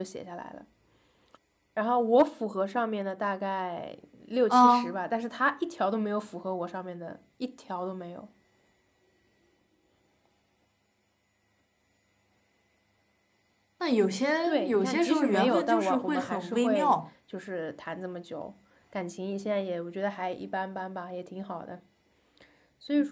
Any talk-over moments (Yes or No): Yes